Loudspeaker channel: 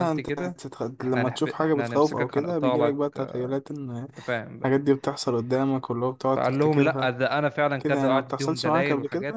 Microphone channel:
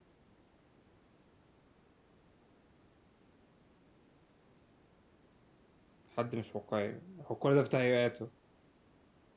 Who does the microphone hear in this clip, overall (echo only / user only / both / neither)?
user only